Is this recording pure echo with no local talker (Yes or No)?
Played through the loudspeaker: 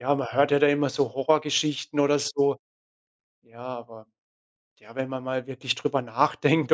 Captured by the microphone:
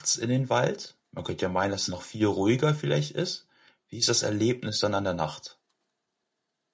No